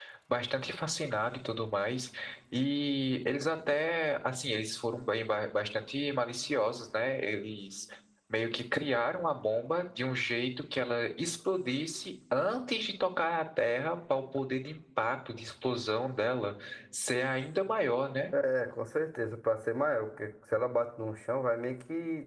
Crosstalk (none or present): none